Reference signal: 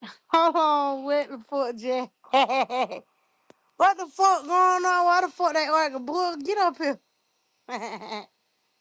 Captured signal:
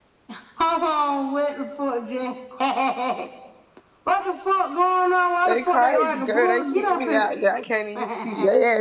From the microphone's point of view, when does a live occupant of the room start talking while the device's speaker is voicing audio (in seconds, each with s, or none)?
5.4 s